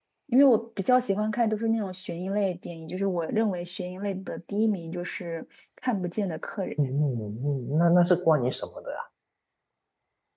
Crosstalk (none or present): none